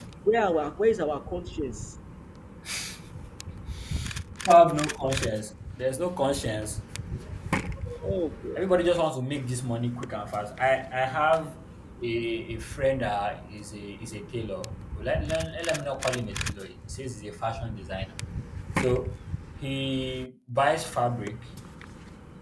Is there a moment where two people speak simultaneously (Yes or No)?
No